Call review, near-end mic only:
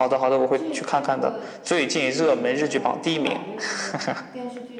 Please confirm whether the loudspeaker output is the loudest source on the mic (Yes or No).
Yes